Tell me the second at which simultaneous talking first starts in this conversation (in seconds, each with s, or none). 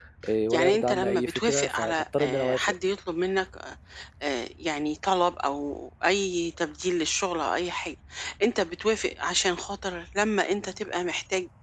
0.5 s